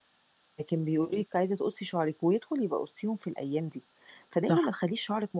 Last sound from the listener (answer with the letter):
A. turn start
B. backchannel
B